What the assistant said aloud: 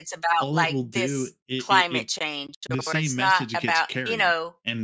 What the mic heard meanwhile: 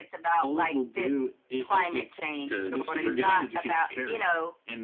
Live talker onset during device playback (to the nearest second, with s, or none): 2 s